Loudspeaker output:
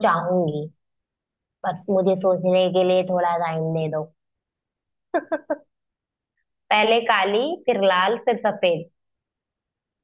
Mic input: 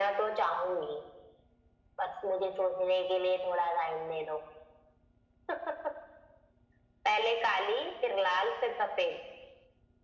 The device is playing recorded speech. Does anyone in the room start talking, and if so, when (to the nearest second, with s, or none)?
none